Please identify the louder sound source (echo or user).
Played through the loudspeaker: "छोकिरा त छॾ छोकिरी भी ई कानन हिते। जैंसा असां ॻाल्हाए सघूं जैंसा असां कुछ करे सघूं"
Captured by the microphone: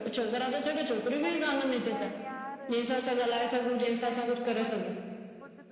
echo